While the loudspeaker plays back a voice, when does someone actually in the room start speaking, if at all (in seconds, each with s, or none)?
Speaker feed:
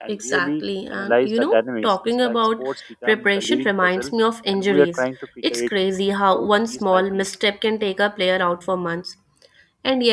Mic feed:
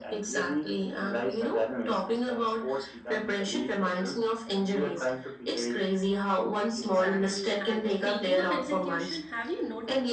6.8 s